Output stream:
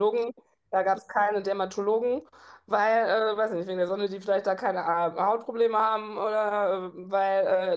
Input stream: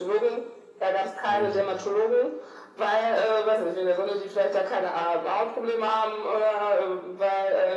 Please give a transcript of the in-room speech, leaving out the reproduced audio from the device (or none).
Ja,